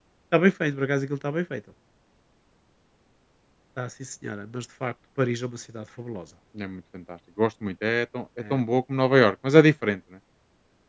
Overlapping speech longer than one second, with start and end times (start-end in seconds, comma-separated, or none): none